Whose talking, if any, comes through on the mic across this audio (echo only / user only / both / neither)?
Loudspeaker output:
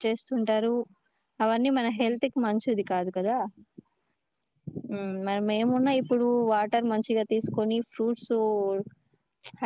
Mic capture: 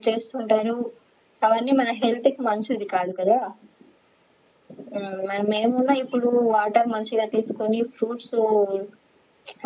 echo only